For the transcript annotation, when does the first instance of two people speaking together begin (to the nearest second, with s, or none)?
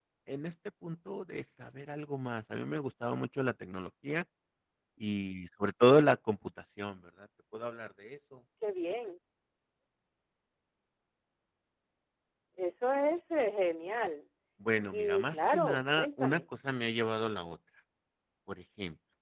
15 s